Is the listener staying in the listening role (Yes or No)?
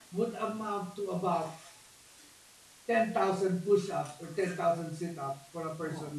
Yes